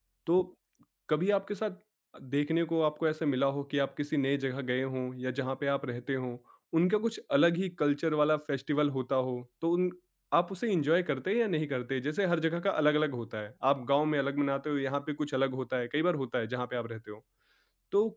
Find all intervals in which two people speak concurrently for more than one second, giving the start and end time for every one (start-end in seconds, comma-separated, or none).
none